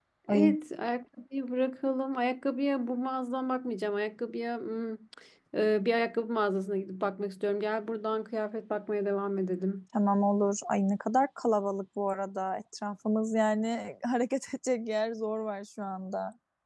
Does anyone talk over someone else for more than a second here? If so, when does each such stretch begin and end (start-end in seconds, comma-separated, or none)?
none